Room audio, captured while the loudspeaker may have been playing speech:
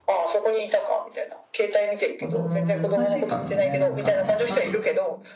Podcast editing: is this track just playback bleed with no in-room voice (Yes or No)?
No